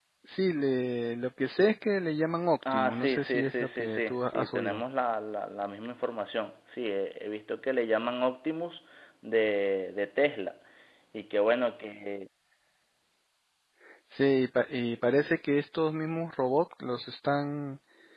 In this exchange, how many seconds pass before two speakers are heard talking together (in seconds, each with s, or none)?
2.6 s